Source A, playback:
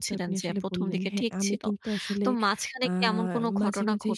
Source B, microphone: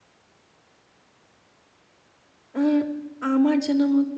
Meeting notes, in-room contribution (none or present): present